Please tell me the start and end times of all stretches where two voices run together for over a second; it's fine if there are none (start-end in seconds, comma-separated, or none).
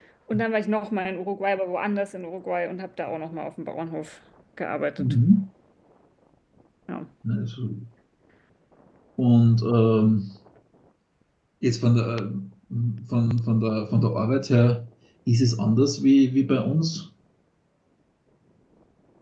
none